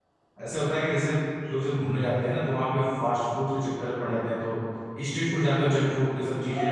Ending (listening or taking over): taking over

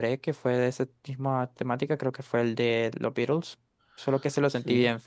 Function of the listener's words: listening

